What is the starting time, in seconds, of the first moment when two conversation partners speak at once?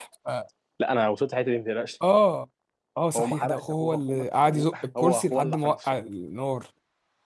3.2 s

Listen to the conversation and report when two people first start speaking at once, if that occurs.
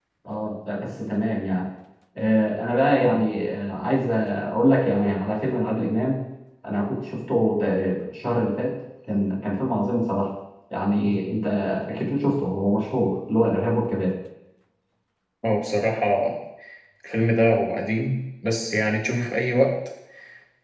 none

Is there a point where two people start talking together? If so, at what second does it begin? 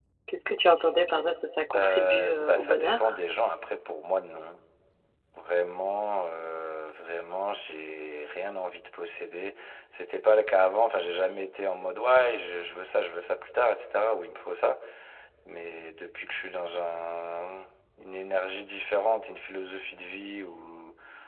1.7 s

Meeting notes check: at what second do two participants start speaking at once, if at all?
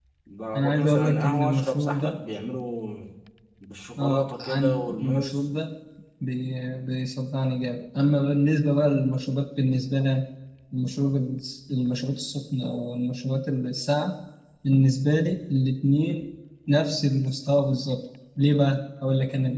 0.6 s

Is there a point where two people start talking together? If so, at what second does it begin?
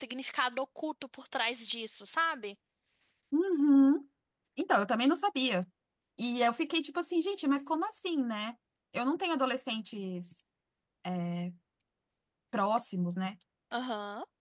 none

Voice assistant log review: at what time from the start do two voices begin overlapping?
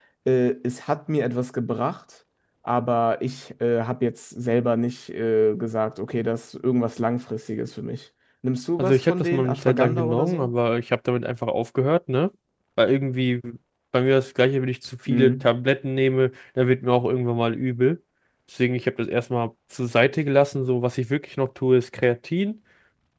8.8 s

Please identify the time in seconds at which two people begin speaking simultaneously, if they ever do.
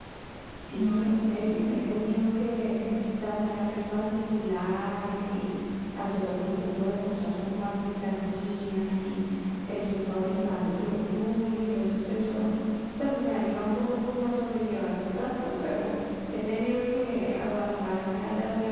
0.7 s

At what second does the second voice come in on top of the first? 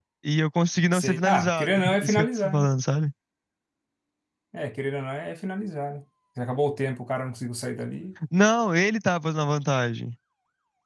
0.9 s

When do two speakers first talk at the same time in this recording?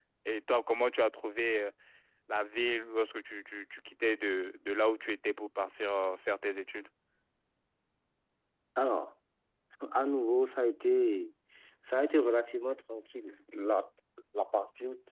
none

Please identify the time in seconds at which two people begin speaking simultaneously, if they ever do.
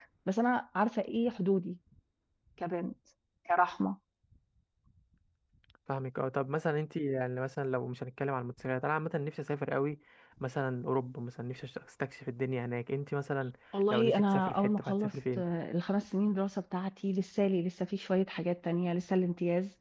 13.9 s

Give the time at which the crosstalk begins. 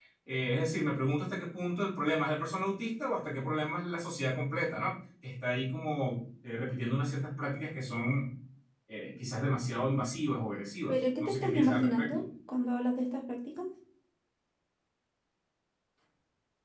10.9 s

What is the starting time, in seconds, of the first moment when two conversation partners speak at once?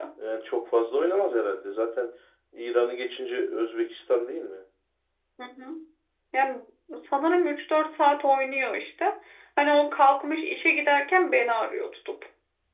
none

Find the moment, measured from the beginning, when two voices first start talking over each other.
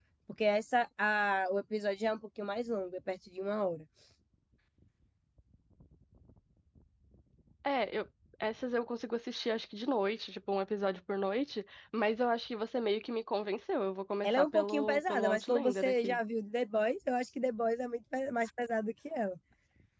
14.2 s

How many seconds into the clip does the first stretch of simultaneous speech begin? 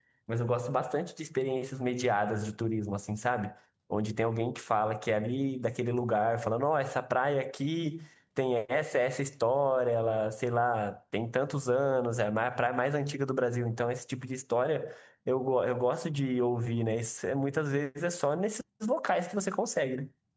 none

